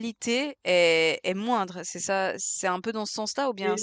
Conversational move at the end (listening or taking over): taking over